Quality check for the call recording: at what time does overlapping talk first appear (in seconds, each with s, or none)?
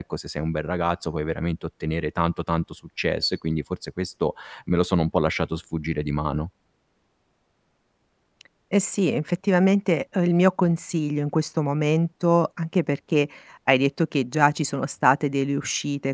none